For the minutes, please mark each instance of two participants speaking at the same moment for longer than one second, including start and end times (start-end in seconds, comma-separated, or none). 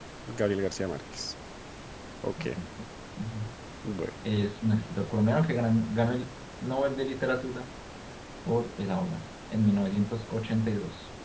none